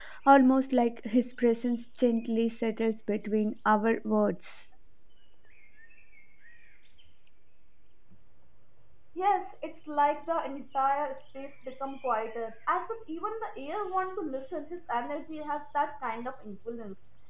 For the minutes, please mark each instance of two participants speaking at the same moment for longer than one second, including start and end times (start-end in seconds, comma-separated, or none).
none